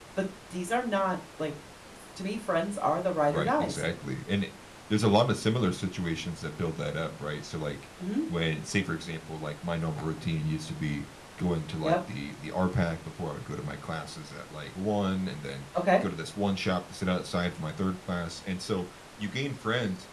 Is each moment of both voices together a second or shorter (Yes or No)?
Yes